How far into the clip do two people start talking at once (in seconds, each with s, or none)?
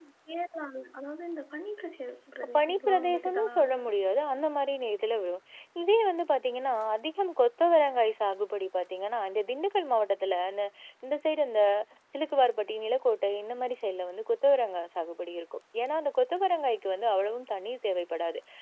2.4 s